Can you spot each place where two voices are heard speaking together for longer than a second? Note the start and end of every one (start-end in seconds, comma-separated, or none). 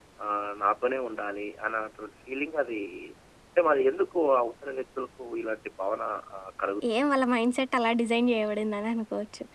none